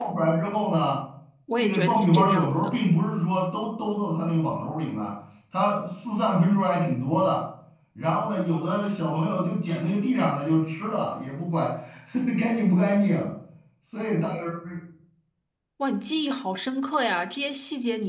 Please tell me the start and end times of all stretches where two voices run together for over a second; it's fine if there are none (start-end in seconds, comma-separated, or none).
1.6-2.8